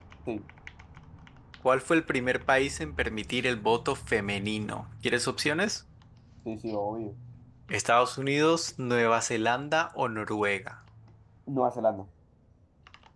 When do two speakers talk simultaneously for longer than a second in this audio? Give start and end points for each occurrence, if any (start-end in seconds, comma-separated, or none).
none